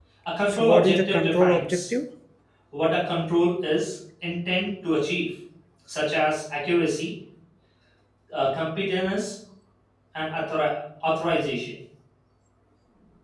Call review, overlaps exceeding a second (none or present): present